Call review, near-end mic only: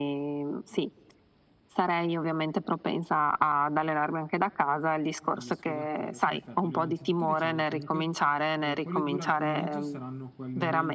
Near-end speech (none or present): present